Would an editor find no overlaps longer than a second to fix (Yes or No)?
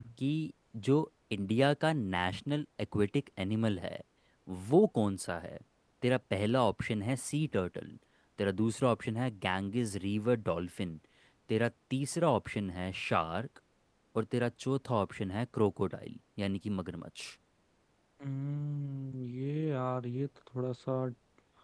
Yes